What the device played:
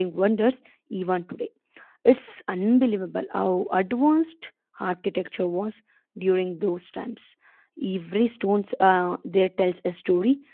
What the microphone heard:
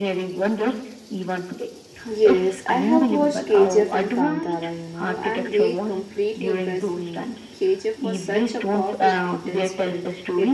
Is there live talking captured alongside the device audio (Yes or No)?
Yes